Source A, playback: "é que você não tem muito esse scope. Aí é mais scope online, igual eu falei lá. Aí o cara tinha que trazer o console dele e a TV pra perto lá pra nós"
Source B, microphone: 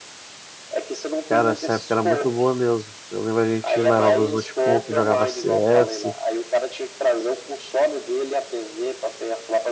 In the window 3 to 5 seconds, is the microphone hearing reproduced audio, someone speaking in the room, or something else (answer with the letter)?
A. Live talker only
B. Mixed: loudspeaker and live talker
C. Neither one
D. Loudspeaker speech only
B